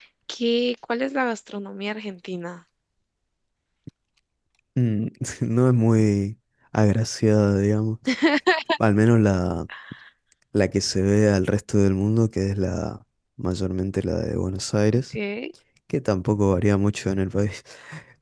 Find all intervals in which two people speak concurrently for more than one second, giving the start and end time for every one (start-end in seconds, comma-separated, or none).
none